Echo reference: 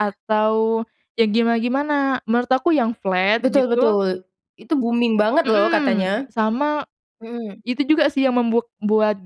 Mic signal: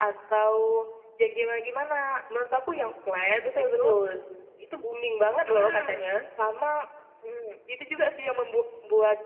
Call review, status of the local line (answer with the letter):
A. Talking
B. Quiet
B